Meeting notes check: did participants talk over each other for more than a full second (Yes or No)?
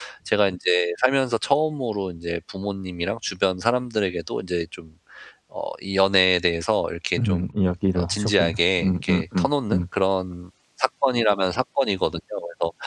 Yes